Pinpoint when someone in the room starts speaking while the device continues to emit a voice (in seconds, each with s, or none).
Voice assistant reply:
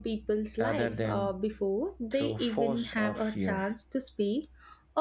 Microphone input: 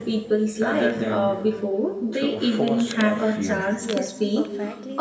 3.8 s